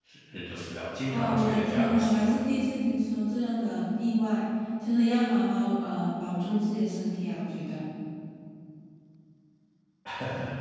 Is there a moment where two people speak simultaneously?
Yes, from 1.1 s

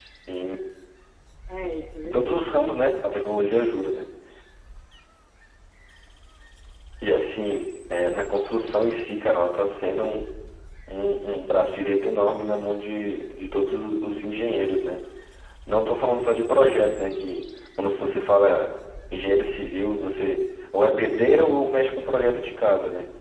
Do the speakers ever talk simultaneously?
Yes, from 2.0 s

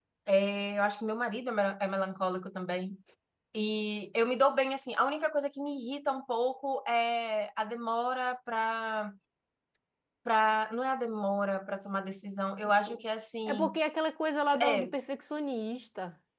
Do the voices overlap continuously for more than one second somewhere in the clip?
No

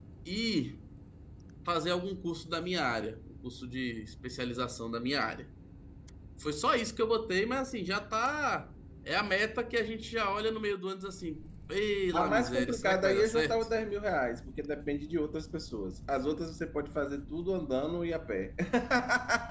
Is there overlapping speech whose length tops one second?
Yes, from 12.1 s

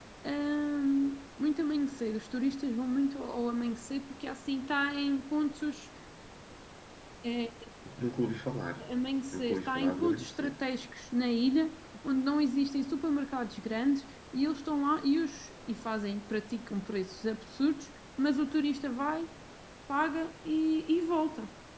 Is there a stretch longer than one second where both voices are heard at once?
Yes, from 9.3 s

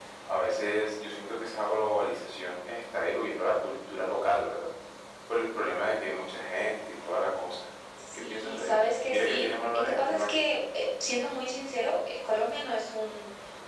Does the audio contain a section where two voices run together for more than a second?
Yes, from 8.1 s

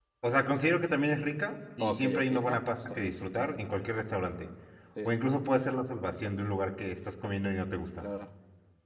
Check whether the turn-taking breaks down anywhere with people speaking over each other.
Yes, from 1.8 s

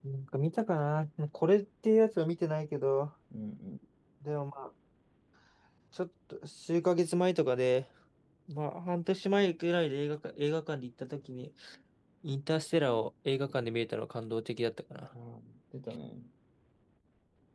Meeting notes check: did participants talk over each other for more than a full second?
No

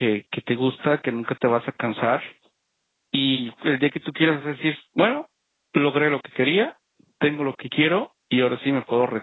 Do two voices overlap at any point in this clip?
No

